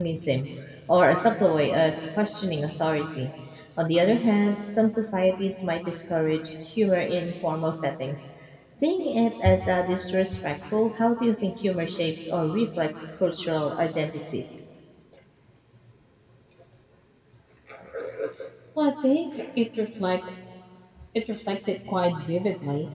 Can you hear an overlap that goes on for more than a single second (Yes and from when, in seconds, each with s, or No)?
No